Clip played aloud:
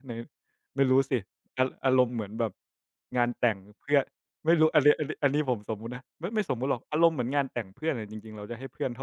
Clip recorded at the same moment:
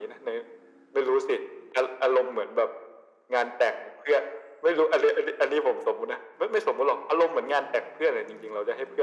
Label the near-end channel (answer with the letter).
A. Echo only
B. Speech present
A